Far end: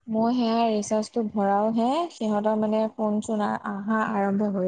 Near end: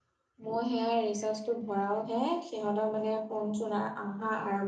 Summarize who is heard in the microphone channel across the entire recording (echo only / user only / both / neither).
echo only